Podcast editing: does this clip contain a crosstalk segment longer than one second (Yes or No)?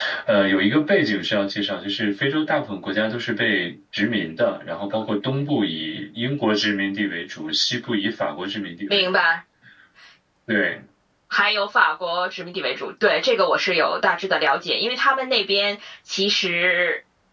No